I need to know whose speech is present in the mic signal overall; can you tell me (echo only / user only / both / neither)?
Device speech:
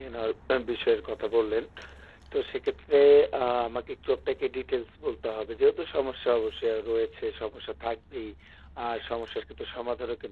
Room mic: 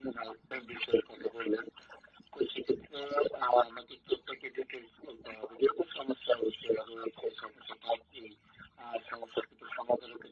echo only